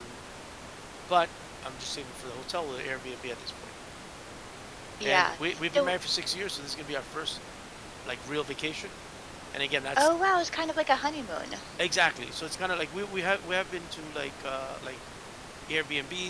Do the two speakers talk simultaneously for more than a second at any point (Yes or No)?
No